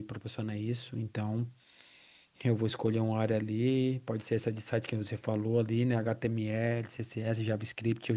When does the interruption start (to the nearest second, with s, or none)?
none